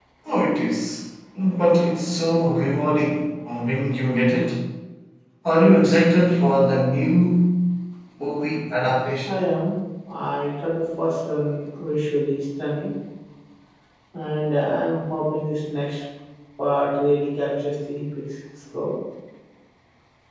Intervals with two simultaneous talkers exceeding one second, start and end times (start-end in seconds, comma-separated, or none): none